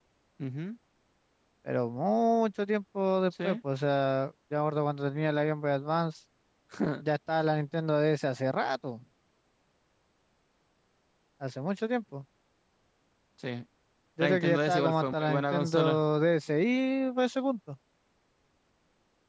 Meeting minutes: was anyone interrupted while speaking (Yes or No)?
Yes